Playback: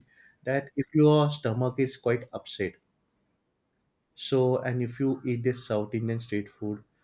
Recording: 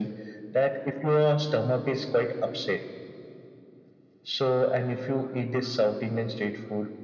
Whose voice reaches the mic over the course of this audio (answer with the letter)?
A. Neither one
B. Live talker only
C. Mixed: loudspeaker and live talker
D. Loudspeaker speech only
D